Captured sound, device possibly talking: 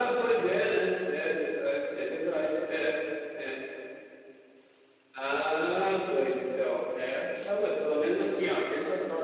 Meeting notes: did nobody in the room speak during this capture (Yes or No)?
Yes